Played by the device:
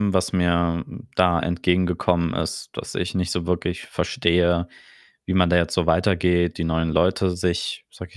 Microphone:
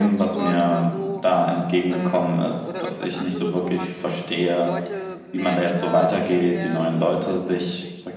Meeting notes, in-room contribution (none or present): present